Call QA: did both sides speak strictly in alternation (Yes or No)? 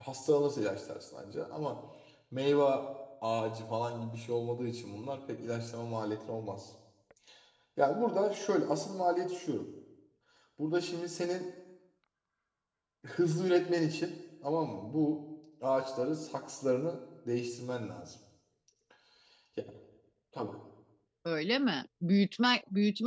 Yes